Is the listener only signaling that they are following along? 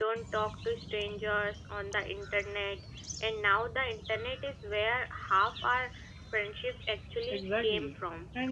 No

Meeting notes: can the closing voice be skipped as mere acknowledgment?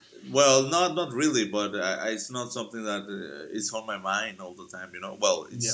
No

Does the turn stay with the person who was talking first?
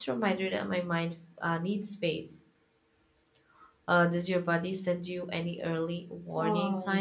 No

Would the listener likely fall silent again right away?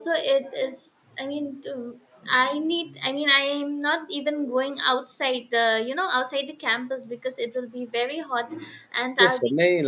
No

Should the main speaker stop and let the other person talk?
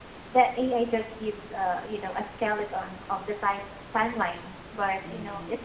No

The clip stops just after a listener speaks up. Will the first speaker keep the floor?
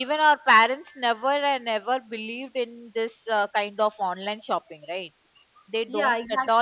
No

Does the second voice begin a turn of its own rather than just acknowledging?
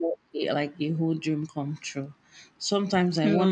No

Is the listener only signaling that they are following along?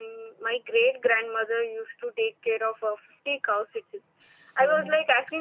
Yes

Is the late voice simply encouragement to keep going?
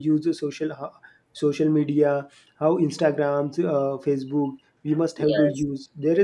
Yes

